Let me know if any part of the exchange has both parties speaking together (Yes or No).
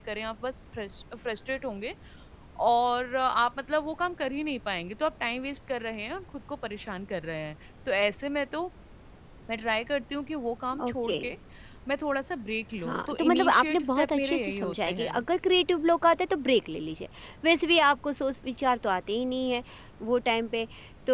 Yes